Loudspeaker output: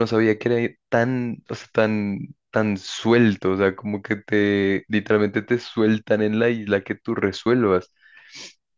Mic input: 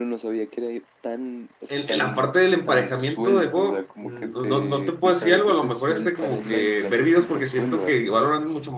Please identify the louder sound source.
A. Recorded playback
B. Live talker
B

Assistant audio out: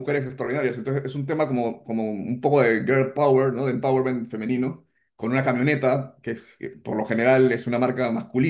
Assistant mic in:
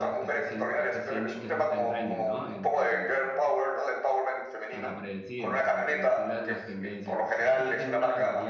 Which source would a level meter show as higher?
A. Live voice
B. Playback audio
B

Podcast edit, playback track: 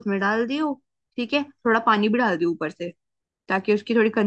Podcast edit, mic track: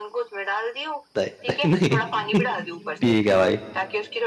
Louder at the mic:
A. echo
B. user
B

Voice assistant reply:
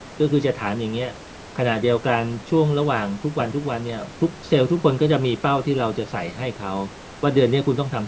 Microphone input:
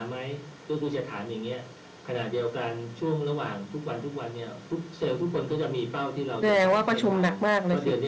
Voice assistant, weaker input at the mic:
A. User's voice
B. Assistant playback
B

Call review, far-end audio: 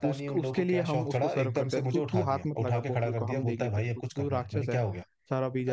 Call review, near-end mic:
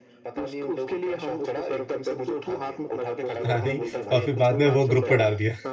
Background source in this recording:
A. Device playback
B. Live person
A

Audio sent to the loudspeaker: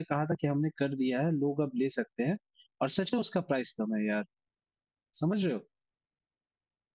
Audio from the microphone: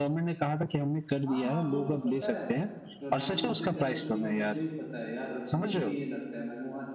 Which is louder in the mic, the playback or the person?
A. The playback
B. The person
A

